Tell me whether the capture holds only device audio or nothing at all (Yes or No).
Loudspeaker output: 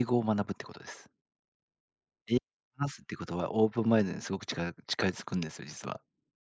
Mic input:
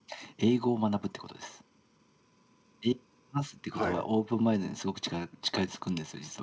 No